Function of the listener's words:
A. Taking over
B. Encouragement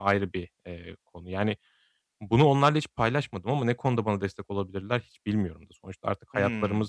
B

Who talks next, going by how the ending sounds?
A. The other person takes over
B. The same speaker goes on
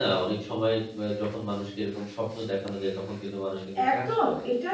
A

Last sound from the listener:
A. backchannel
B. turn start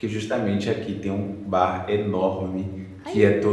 A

